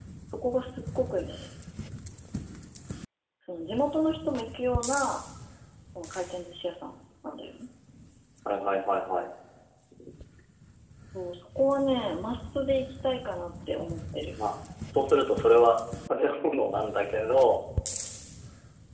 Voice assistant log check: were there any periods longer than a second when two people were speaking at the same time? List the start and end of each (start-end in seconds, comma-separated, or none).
none